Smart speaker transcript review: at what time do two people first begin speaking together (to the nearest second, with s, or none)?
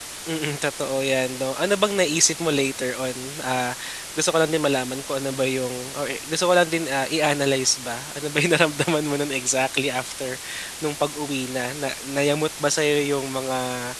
none